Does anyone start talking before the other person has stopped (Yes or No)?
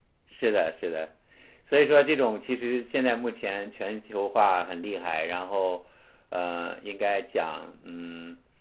No